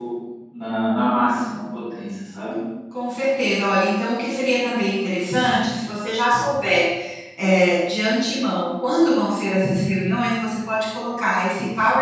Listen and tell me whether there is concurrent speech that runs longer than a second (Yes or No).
No